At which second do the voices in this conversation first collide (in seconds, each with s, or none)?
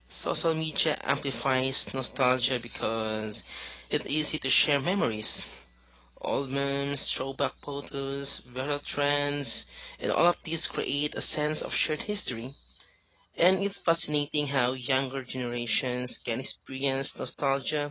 none